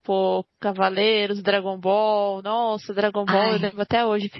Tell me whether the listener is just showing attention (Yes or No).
Yes